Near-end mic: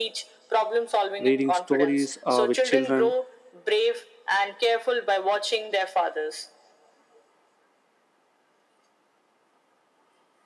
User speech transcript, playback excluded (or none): reading stories uh, with children,